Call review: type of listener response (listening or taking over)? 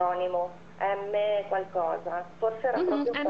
taking over